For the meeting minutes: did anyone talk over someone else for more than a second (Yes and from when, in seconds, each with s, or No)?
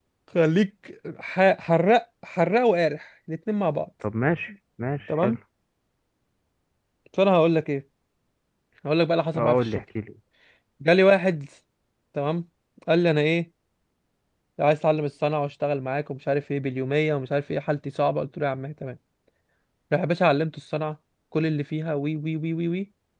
No